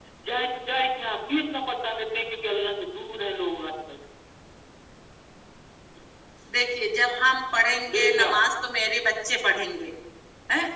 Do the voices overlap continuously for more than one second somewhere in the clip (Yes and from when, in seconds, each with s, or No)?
No